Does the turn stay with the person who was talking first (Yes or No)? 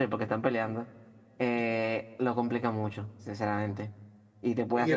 No